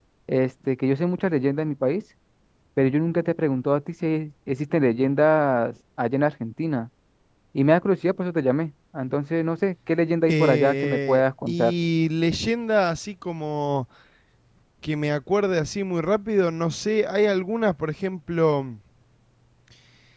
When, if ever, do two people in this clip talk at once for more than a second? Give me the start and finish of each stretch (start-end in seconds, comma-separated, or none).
10.3-11.7